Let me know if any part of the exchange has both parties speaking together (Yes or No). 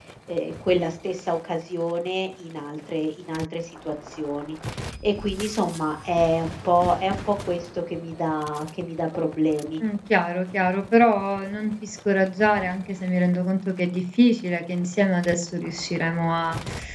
No